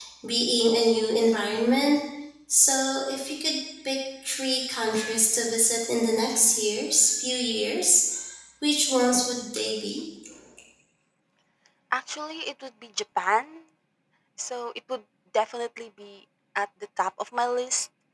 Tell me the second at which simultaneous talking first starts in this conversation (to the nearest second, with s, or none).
none